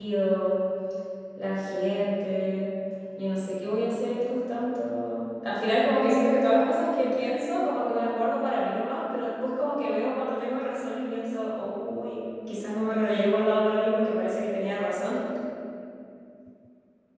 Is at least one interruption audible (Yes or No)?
No